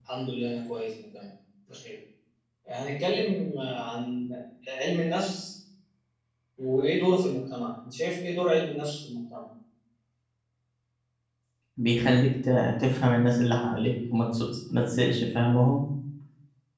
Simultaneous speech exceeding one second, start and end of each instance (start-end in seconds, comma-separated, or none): none